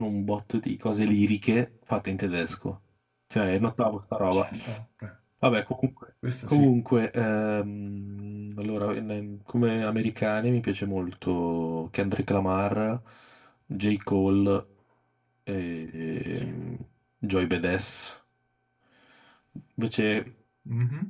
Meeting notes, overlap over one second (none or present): none